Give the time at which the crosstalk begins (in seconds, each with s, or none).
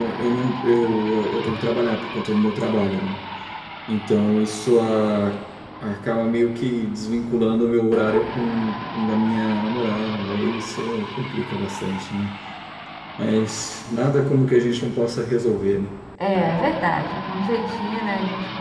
none